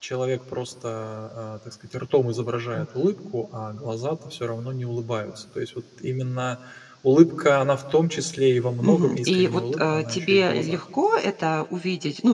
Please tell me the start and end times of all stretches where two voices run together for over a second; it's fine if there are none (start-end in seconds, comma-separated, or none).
8.8-10.8